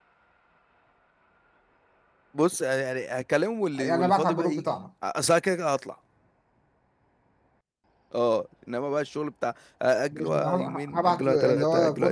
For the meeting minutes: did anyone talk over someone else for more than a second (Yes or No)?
Yes